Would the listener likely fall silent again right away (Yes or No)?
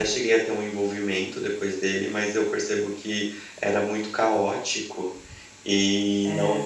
Yes